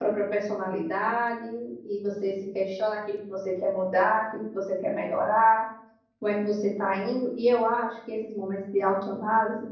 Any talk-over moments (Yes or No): No